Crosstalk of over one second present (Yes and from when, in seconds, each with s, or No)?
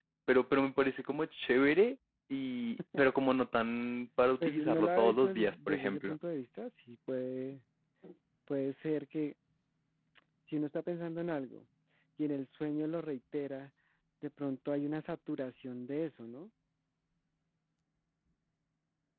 Yes, from 4.4 s